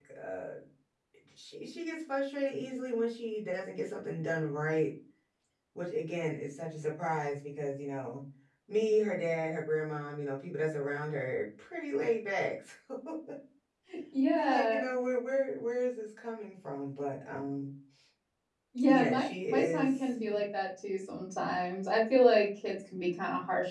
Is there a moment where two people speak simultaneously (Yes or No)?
Yes